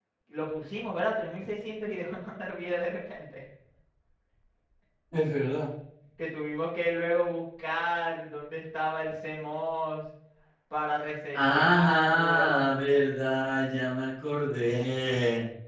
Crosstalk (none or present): present